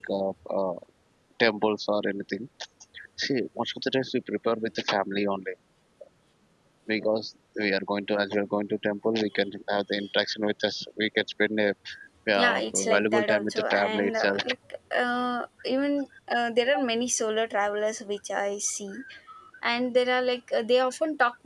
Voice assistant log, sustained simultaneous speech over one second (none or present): present